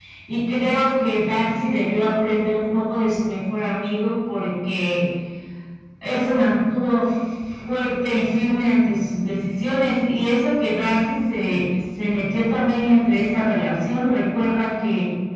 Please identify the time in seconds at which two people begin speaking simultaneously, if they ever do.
none

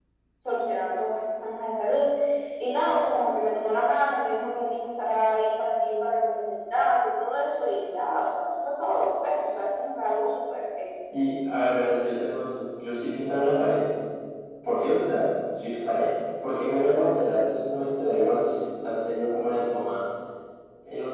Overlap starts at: none

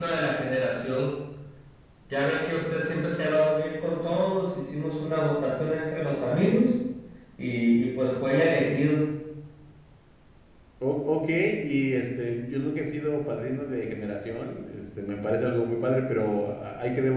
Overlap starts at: none

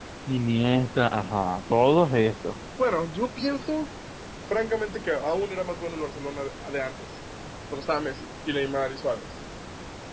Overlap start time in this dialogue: none

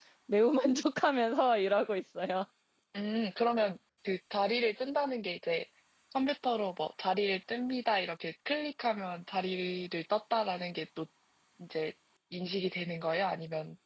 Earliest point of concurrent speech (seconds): none

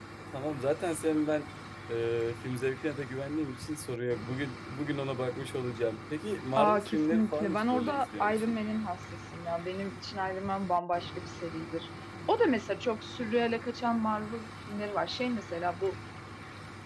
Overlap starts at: 6.6 s

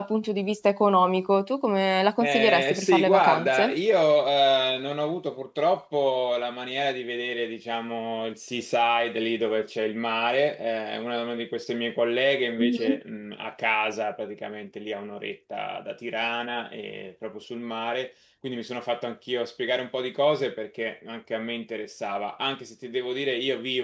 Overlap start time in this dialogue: 2.2 s

